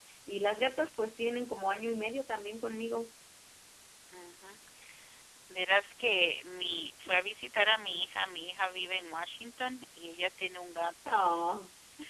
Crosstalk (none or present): none